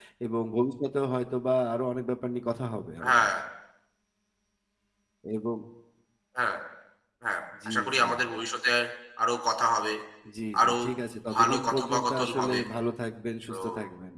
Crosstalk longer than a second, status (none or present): present